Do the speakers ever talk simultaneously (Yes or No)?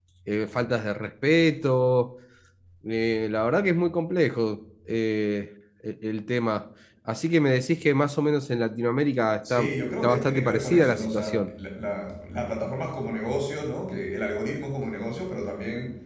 Yes